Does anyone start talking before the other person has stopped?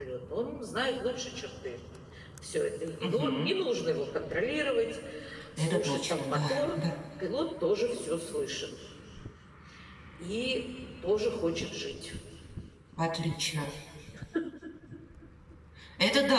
Yes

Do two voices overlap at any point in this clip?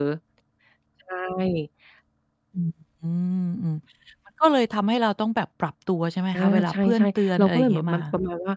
Yes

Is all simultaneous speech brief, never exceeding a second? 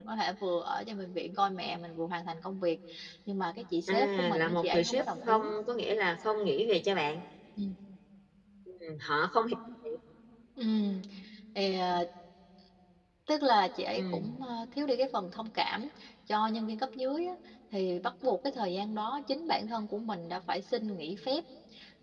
No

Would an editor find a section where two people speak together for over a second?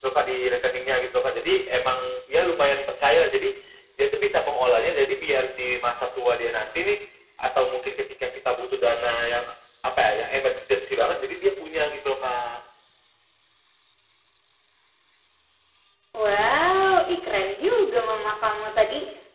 No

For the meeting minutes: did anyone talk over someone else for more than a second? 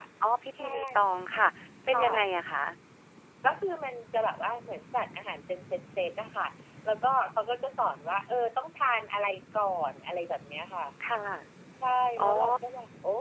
No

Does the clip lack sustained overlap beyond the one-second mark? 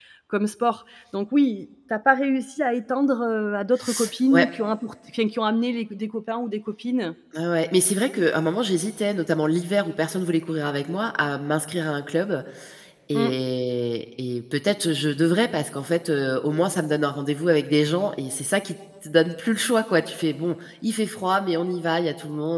Yes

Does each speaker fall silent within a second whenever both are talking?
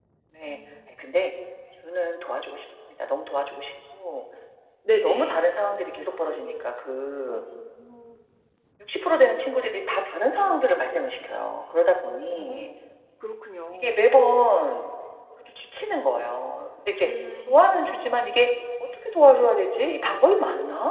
Yes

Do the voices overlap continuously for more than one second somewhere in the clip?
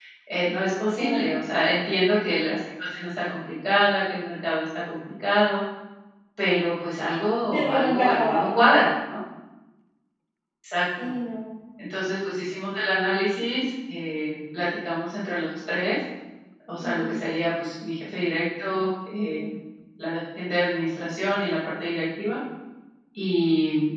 Yes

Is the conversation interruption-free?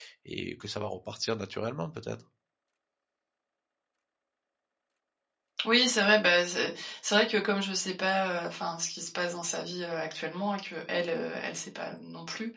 Yes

